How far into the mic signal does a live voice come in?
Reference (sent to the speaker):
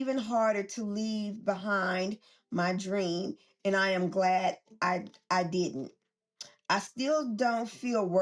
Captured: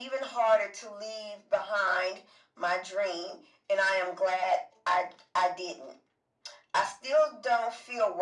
none

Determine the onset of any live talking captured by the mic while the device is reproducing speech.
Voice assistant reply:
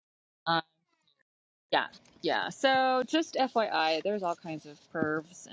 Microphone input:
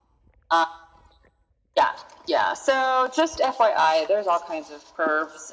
none

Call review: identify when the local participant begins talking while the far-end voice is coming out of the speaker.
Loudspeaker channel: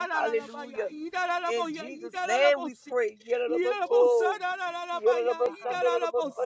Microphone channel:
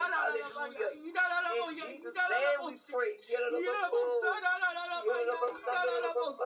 none

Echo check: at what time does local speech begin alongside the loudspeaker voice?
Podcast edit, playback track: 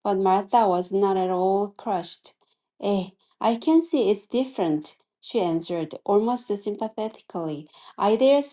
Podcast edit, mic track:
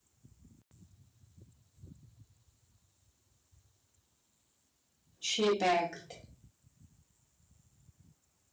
5.3 s

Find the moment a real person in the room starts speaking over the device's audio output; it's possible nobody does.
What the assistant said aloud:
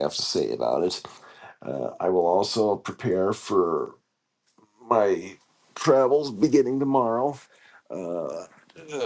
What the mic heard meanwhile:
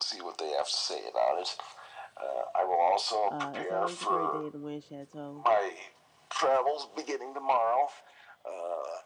3.2 s

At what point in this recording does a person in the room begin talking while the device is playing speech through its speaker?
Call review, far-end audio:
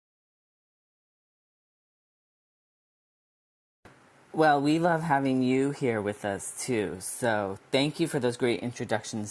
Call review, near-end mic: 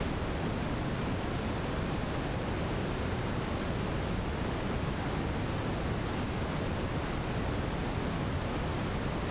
none

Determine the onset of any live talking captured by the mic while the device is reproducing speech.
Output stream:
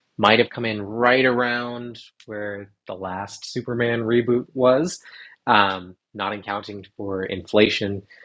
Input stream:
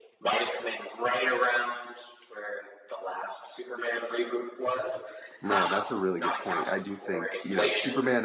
5.4 s

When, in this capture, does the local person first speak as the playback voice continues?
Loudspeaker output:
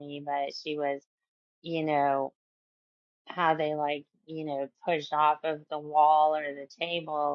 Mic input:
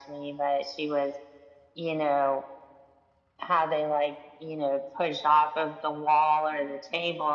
none

